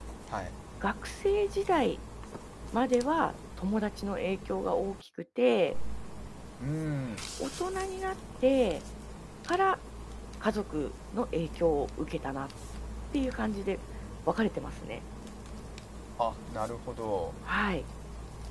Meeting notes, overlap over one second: none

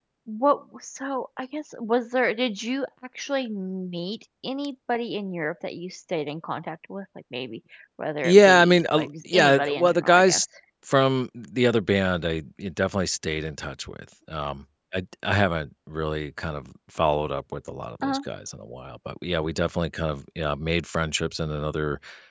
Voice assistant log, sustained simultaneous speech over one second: present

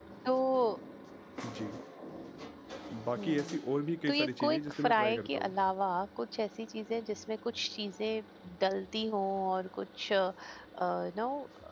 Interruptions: present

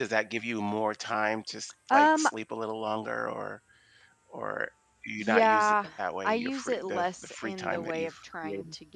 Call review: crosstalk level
present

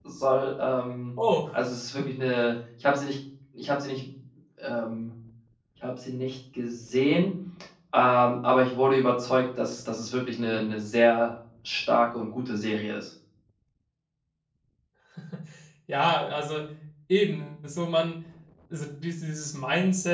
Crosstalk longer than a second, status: none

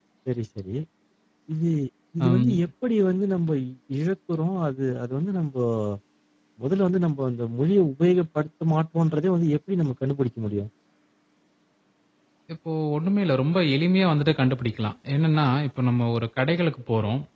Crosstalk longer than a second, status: none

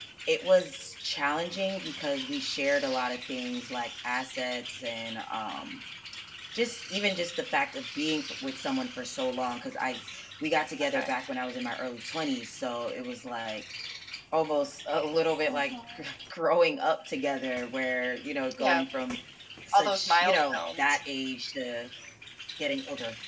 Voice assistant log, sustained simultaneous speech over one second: present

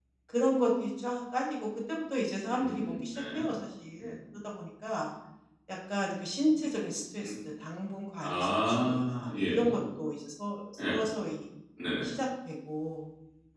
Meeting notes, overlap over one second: present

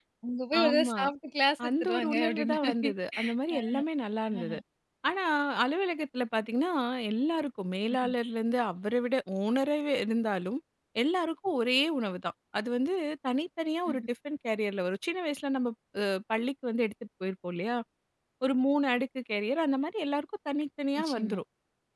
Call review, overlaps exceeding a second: present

